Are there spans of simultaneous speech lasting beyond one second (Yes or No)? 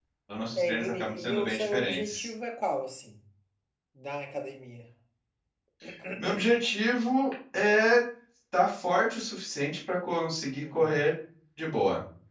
Yes